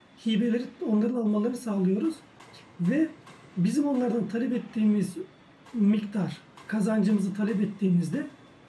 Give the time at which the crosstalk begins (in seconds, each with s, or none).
none